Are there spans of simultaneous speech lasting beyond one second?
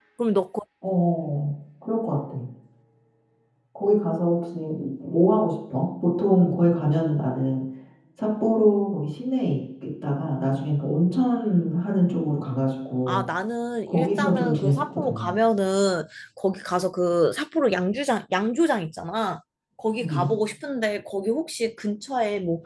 Yes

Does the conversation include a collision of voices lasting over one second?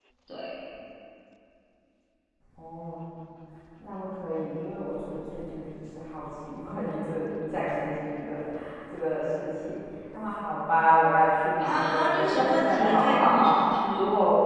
Yes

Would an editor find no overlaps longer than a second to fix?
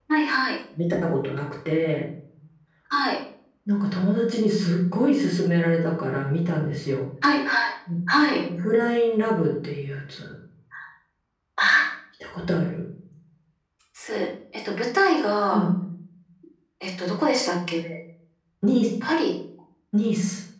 Yes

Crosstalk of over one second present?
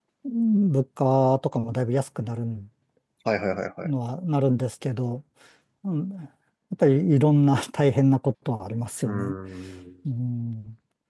No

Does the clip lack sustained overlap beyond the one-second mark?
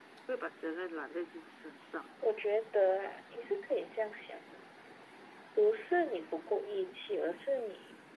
Yes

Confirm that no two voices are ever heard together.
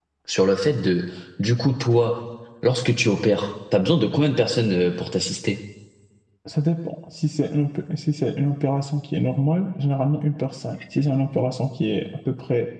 Yes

